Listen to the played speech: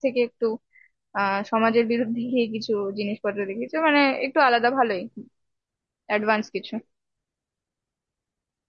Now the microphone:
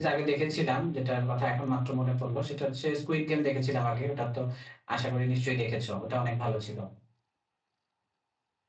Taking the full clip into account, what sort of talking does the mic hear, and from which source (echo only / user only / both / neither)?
user only